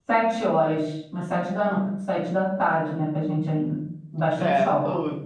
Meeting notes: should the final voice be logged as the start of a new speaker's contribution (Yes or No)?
Yes